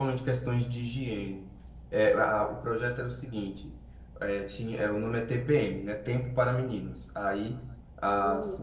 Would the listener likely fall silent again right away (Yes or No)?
Yes